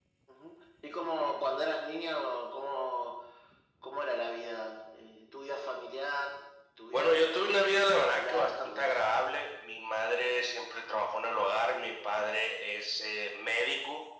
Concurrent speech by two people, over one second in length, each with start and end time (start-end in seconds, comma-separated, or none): 6.9-9.0